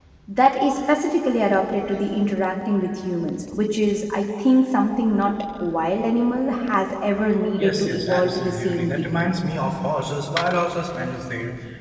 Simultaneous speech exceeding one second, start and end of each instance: 7.6-9.3

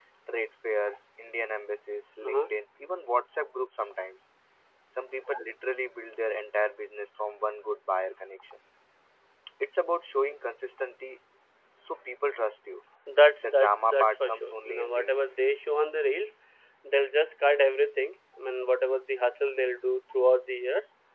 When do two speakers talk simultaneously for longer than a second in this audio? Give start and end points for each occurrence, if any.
13.4-15.3

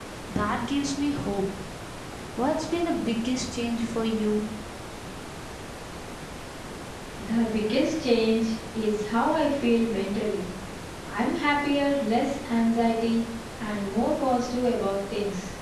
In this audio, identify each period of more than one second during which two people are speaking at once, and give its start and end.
none

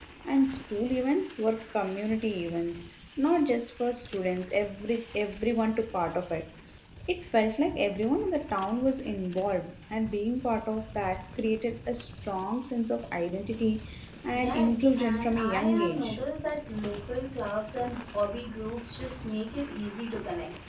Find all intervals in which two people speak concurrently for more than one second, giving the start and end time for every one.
14.3-16.2

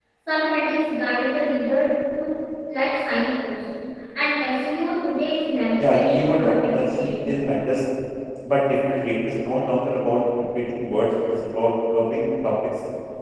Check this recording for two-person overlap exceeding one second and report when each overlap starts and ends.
5.8-7.3

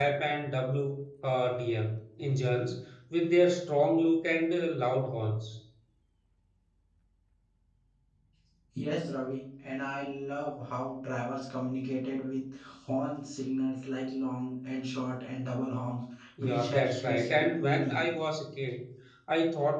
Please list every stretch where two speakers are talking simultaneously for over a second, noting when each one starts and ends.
16.4-18.0

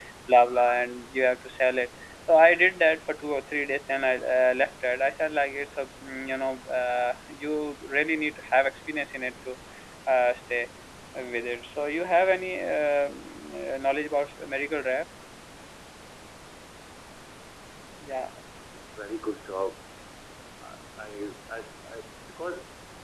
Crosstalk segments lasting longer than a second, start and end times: none

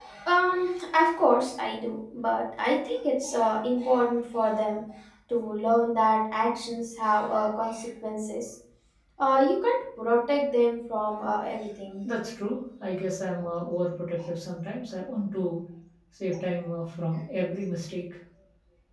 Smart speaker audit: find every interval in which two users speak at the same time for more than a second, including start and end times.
none

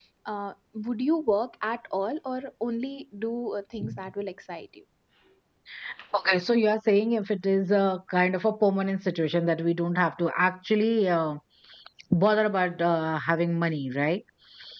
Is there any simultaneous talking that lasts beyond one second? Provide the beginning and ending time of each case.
none

